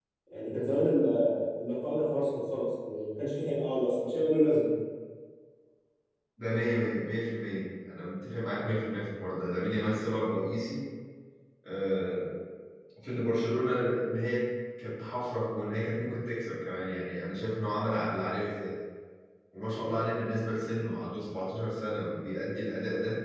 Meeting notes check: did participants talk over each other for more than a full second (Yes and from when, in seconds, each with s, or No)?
No